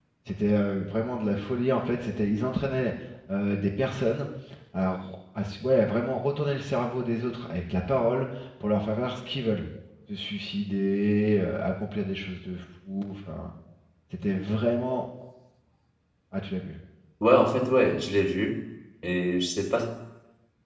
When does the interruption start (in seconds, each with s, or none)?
none